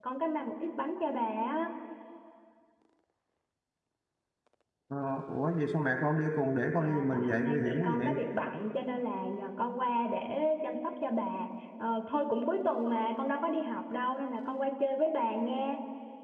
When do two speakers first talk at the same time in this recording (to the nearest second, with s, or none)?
7 s